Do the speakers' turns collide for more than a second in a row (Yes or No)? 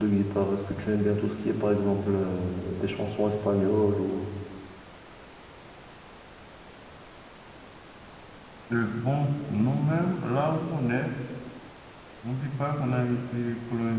No